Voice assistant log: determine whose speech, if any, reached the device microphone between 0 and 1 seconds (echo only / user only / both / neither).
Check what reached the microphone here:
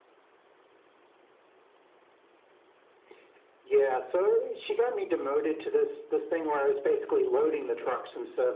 neither